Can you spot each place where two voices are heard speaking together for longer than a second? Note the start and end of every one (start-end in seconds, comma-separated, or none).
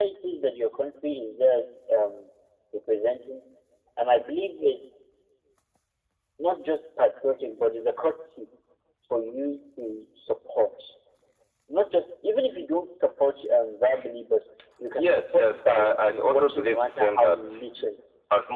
15.1-17.4